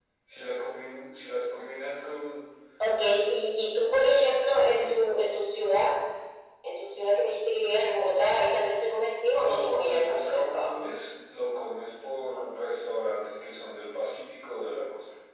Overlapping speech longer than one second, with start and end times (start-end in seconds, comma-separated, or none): 9.3-10.7